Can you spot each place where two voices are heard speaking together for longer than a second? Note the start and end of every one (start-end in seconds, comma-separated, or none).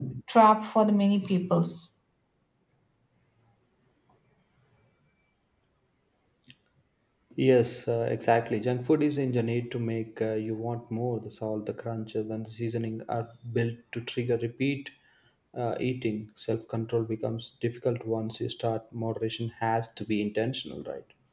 none